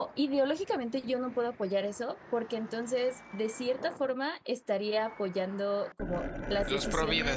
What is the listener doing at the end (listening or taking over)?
listening